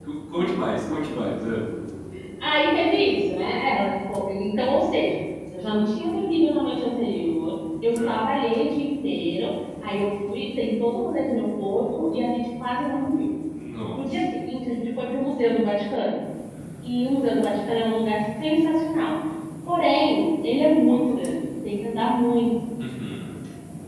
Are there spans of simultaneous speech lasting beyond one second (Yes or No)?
No